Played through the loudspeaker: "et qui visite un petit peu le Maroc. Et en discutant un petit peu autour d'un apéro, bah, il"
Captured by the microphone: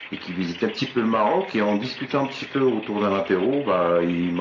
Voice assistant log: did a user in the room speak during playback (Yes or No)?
No